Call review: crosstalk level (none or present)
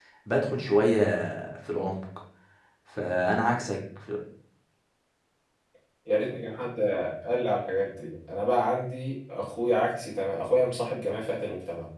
none